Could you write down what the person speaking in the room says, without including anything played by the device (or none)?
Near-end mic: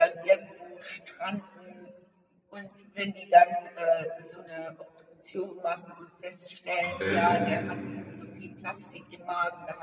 Okay.